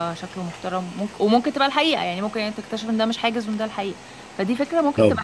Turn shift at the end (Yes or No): Yes